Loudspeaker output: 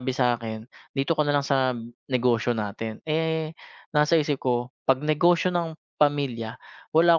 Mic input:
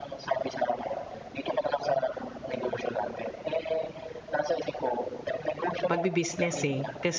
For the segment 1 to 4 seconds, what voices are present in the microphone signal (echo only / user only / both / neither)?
echo only